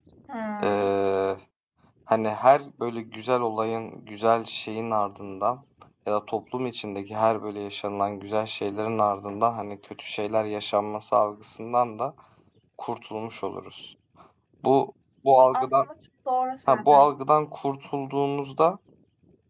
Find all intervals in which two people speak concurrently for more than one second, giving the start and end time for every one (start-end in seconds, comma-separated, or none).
none